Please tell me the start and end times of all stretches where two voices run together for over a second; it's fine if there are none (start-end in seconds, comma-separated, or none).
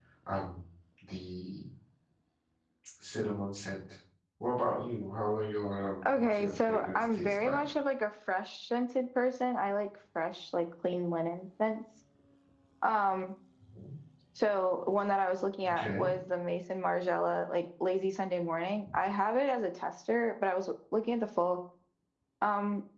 6.0-7.6